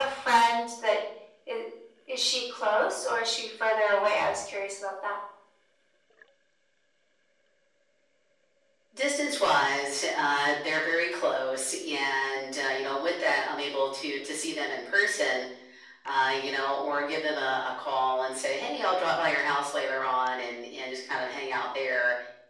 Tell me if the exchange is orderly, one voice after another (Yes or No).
Yes